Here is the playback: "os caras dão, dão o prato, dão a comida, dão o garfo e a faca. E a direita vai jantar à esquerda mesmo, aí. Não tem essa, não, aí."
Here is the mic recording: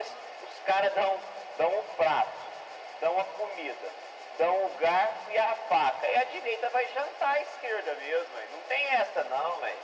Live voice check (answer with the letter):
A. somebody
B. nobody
B